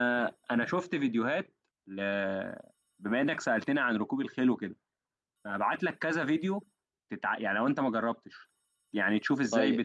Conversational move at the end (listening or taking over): listening